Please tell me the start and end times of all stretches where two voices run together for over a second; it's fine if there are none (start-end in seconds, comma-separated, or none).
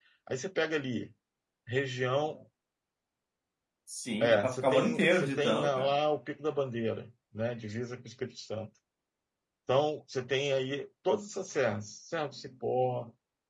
4.2-5.9